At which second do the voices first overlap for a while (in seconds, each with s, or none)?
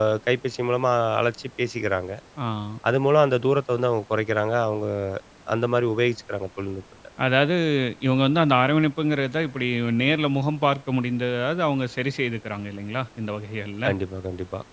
none